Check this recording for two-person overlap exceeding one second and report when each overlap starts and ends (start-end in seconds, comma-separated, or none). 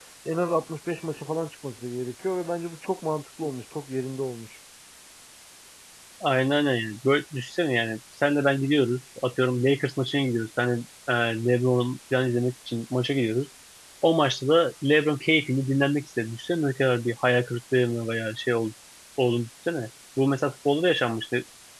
none